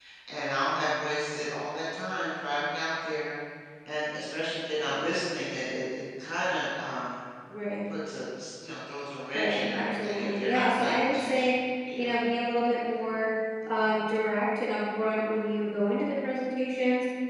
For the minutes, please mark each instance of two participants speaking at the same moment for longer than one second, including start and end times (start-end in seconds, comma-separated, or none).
9.3-11.5